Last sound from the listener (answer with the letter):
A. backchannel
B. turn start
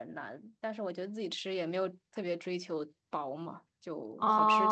B